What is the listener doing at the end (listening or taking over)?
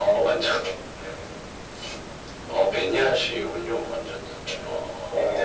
taking over